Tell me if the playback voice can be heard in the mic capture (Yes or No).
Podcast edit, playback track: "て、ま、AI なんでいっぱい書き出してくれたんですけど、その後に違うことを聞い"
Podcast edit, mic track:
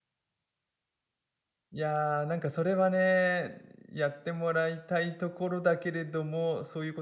No